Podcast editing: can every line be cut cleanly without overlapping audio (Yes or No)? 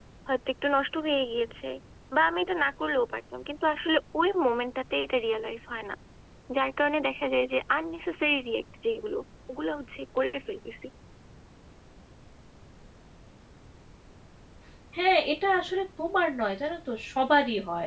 Yes